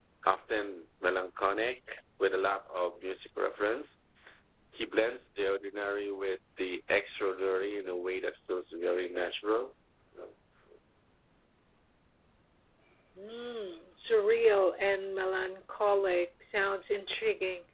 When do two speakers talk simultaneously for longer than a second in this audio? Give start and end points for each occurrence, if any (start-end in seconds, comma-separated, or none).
none